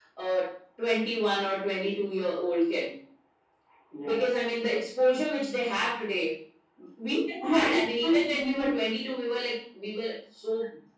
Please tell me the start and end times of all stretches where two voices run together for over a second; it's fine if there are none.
7.4-8.7

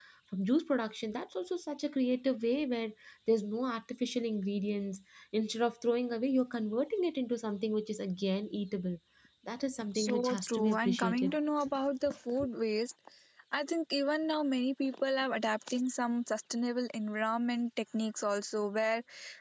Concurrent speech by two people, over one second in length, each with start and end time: 9.9-11.4

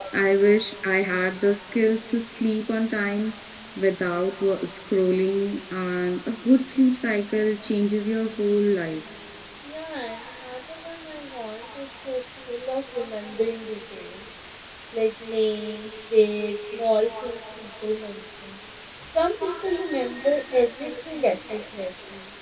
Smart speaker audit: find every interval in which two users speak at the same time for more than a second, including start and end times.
none

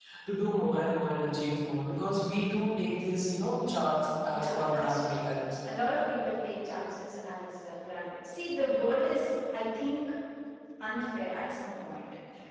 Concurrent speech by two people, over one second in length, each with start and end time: 4.2-5.7

